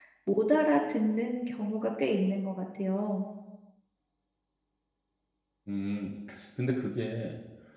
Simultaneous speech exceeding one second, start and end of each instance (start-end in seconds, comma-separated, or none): none